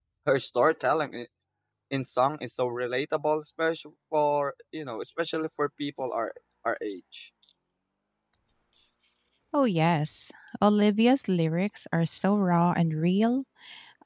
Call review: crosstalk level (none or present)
none